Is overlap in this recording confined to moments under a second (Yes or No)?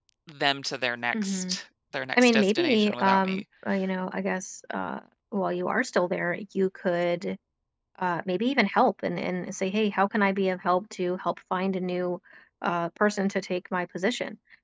No